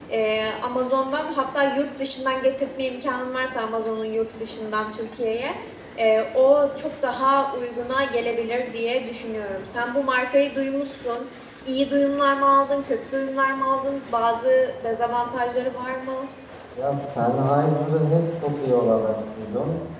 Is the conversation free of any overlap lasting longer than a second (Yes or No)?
Yes